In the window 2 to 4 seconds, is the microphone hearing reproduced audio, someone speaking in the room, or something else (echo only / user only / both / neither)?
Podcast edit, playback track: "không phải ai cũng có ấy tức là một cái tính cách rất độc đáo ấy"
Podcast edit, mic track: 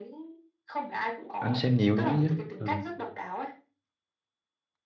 both